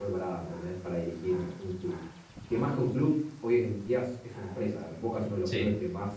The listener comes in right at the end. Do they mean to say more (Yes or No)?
No